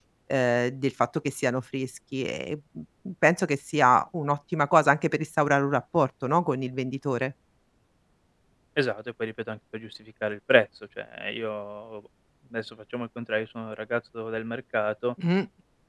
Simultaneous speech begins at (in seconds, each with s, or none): none